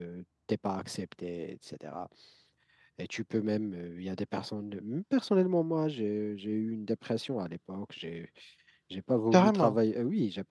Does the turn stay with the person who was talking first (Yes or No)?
Yes